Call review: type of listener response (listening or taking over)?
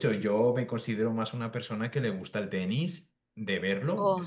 listening